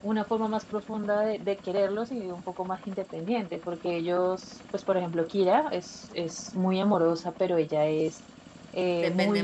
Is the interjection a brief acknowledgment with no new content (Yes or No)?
Yes